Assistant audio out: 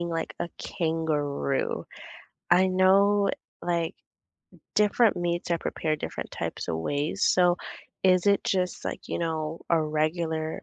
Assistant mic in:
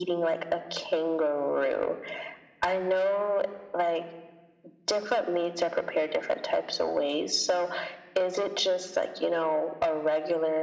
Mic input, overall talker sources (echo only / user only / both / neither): echo only